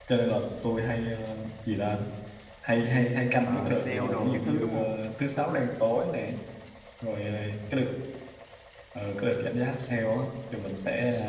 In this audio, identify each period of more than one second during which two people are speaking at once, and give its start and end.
3.4-5.0

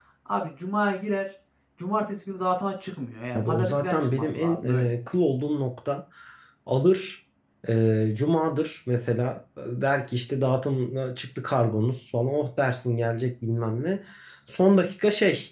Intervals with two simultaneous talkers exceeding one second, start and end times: 3.3-4.9

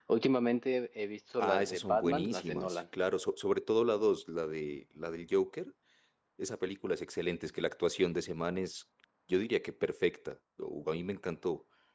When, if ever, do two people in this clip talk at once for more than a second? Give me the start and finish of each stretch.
1.4-2.8

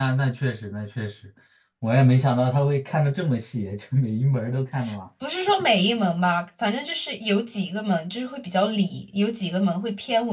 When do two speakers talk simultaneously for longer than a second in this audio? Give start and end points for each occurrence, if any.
none

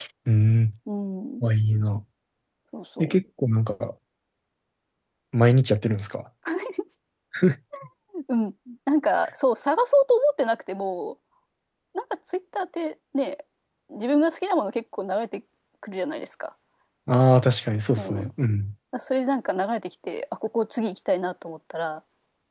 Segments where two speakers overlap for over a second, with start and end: none

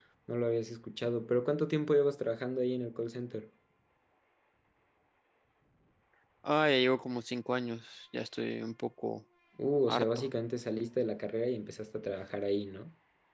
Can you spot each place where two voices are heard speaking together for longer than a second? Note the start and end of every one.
none

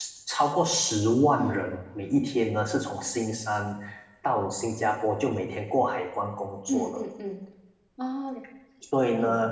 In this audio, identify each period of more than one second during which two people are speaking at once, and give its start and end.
none

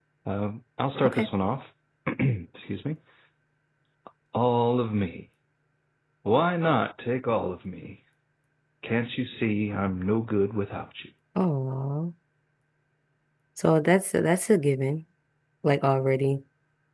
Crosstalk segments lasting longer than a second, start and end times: none

